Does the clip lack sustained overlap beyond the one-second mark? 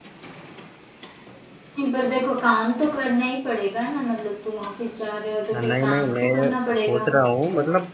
No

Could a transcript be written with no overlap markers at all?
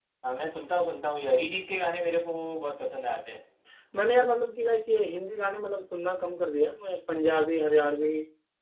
Yes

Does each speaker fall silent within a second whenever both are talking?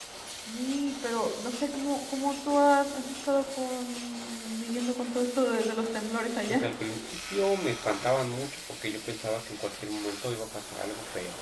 Yes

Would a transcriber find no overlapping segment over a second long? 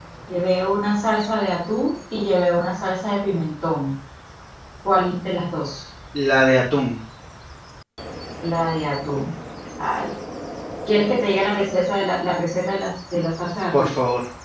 Yes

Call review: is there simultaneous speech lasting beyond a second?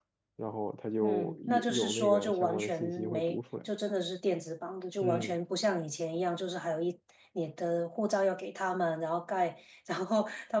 Yes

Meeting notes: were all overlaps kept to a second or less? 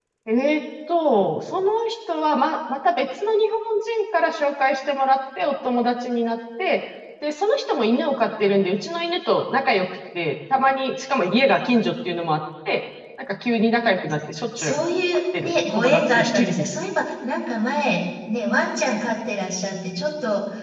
No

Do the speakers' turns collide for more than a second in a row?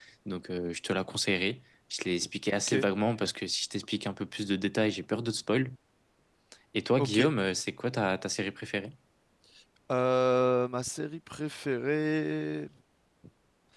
No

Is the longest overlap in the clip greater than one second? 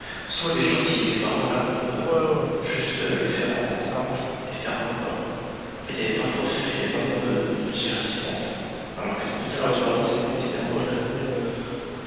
Yes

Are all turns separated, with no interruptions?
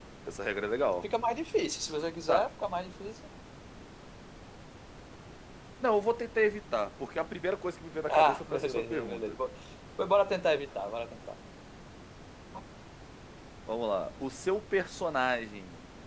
No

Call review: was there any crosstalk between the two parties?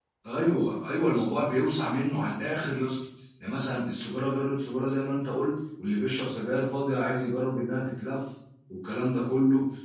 No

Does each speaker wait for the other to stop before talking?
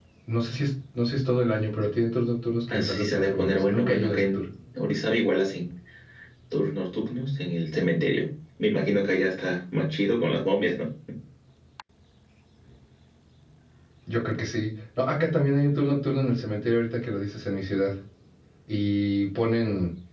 No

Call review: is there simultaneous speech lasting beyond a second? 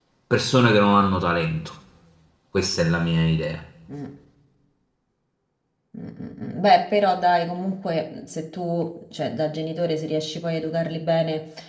No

